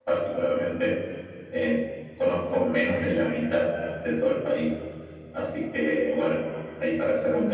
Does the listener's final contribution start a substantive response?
Yes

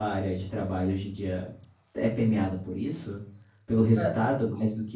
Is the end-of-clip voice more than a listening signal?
No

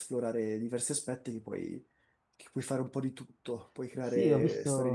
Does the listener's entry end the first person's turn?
Yes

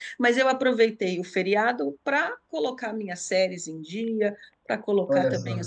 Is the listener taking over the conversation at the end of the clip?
No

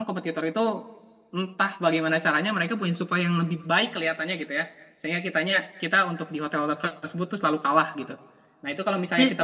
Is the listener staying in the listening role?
Yes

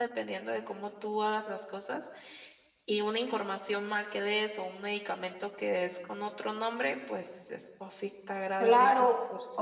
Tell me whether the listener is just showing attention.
No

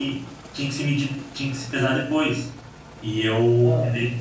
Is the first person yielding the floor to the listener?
No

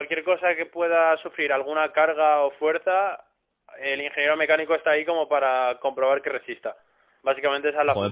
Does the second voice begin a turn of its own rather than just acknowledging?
Yes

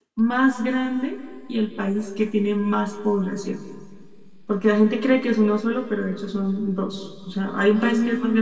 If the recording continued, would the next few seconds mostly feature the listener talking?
No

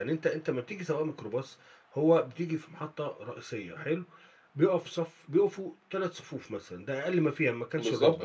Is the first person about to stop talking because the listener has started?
No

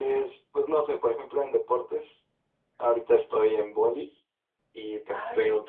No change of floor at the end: Yes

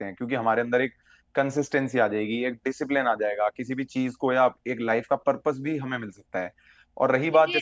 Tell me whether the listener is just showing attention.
No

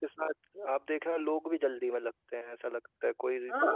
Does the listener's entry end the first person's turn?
No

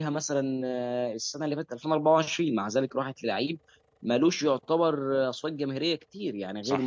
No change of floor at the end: Yes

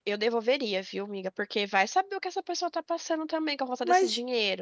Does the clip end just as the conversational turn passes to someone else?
Yes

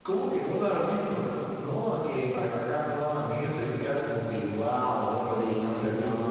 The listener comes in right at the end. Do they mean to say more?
Yes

